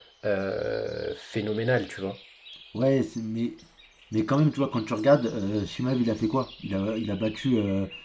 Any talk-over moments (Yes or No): No